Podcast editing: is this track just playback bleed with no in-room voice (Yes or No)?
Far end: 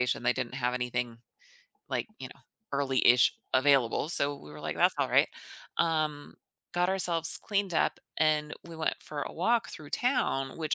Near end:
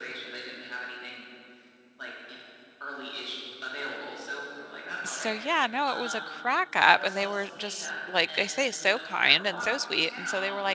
No